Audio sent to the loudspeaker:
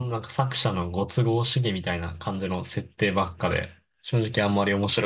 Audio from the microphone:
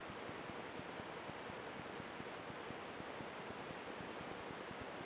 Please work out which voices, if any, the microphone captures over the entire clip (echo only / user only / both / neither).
neither